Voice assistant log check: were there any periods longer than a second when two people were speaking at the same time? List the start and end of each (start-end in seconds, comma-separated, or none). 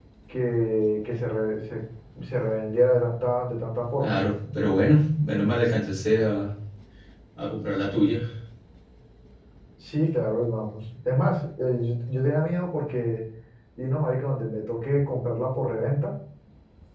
none